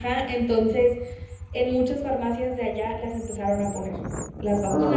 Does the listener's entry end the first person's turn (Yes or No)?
No